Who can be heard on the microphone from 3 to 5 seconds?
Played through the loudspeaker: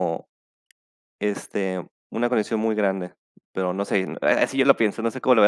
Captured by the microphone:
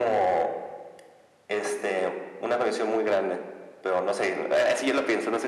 echo only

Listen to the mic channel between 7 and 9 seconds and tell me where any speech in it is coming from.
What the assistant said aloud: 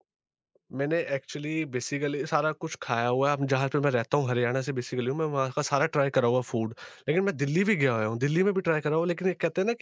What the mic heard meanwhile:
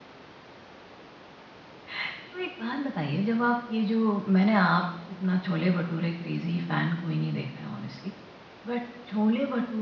user only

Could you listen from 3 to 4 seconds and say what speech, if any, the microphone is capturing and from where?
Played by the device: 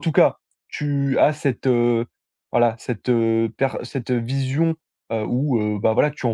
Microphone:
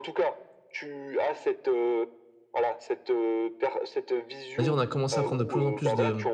echo only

